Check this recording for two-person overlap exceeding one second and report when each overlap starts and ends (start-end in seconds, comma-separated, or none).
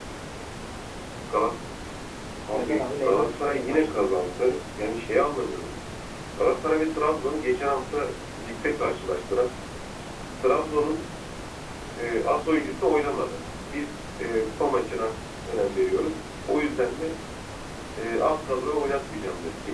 2.5-4.0